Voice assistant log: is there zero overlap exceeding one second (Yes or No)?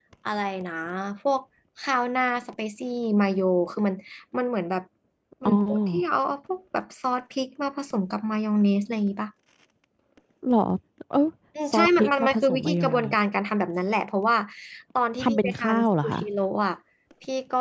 No